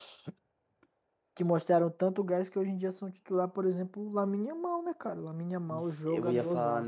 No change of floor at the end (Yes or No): No